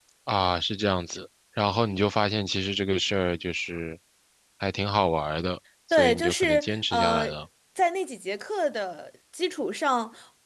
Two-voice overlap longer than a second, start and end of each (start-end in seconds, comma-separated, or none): 5.9-7.3